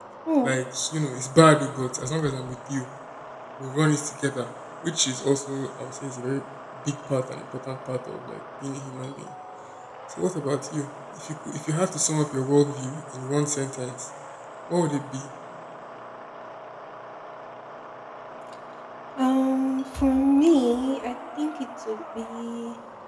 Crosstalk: none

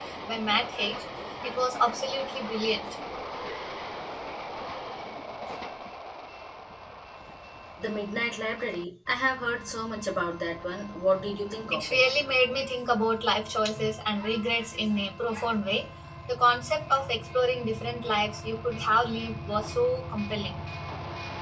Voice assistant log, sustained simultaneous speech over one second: none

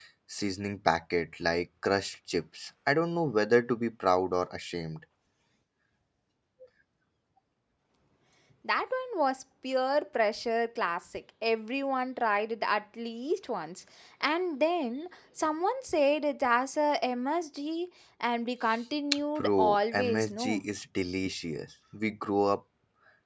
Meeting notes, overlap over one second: present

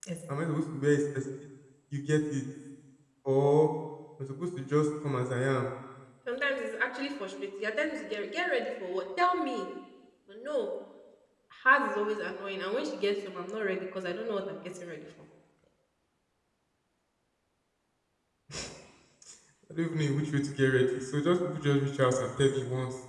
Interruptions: none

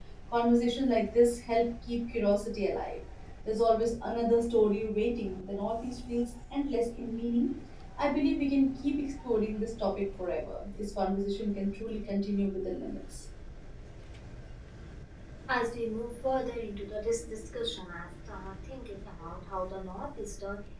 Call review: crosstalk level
none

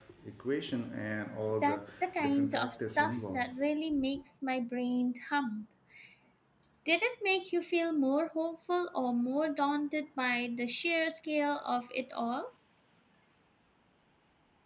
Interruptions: present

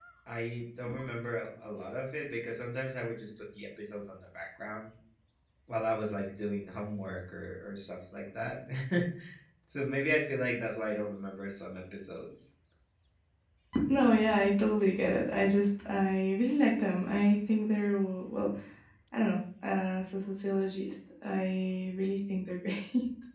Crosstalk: none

